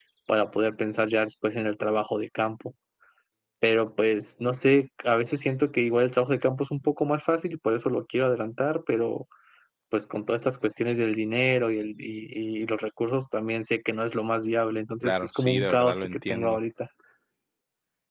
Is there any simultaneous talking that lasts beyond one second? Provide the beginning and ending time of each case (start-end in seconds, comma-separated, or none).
15.0-16.6